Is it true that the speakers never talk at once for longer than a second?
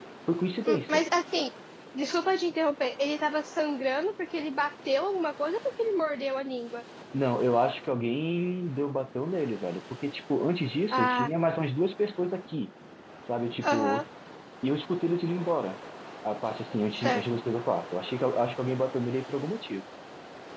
Yes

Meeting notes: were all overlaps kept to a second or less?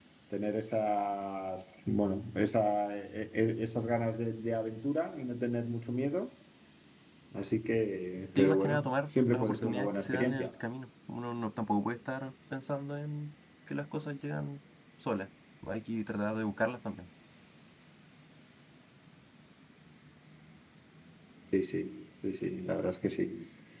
No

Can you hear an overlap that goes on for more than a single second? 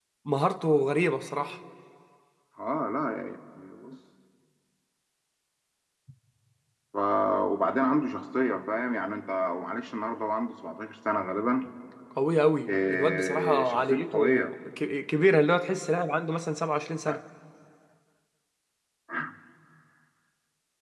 Yes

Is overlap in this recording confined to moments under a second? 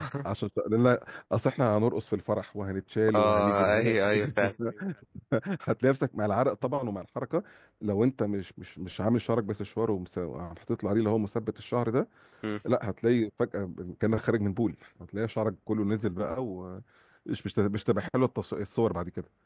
No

